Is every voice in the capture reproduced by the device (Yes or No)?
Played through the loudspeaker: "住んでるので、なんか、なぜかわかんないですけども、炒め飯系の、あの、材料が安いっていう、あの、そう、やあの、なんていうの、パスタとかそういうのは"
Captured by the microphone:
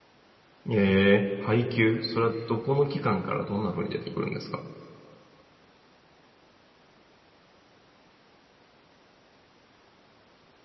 No